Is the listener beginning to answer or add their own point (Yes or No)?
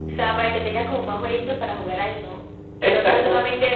No